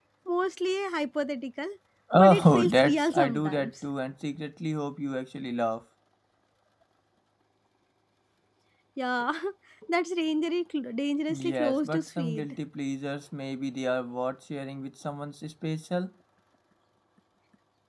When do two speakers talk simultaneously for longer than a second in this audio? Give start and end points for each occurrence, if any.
2.1-3.7, 11.3-12.6

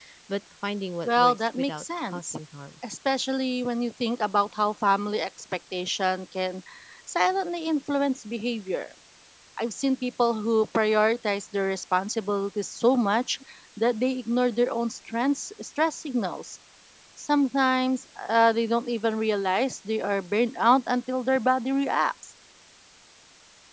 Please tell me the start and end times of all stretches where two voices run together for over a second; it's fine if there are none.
1.0-2.4

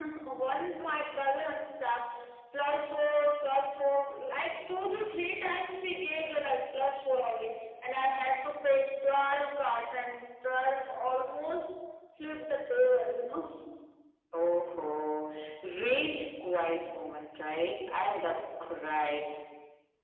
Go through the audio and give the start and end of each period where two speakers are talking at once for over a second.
none

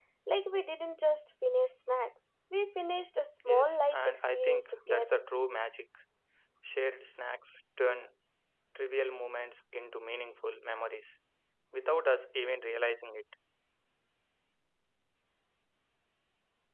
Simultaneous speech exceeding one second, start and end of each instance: 3.5-5.2

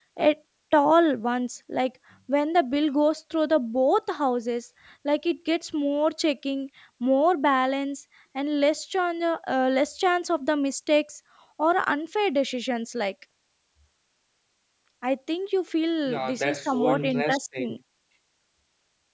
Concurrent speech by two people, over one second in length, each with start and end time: 16.1-17.8

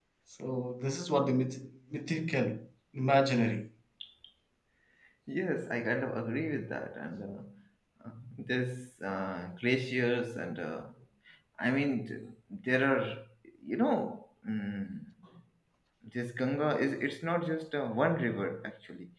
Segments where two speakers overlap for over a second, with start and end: none

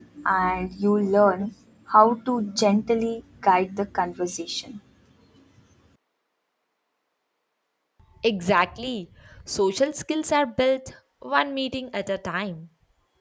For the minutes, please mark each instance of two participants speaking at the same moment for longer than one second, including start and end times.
none

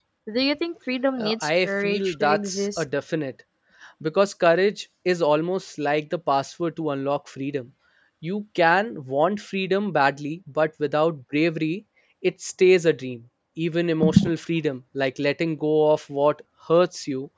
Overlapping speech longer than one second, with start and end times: 1.2-2.8

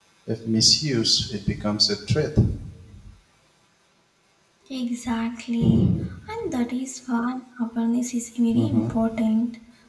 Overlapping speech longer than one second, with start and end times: none

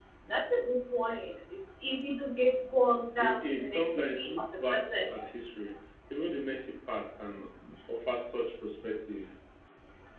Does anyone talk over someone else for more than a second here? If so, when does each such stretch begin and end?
3.2-5.1

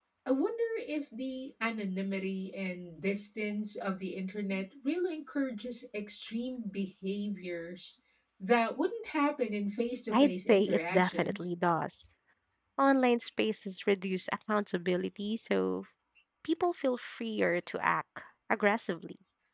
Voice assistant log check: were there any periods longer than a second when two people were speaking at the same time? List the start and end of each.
10.1-11.5

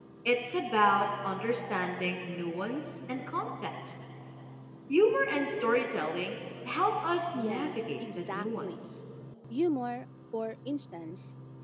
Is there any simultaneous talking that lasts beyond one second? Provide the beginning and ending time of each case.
7.3-8.9

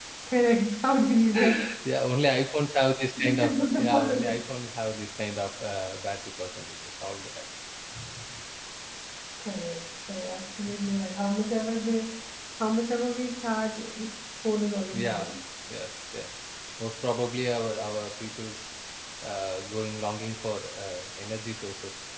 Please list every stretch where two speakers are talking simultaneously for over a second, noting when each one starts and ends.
3.2-4.4

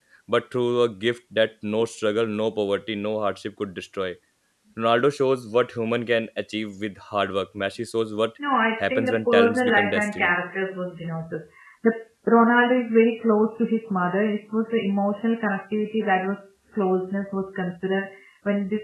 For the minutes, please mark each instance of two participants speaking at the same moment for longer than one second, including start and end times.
8.8-10.3

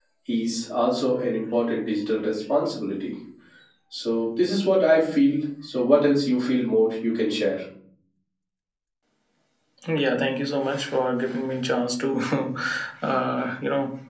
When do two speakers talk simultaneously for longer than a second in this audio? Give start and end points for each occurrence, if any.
none

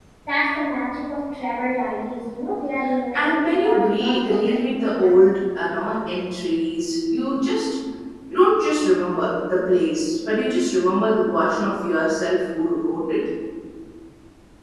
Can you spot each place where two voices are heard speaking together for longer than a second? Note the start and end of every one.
3.1-5.2

